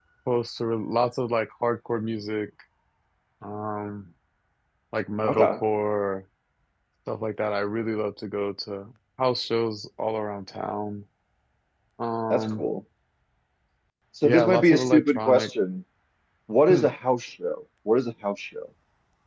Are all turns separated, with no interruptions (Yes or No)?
No